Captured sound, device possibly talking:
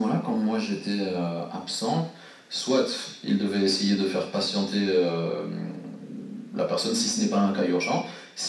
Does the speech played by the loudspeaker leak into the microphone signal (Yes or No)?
Yes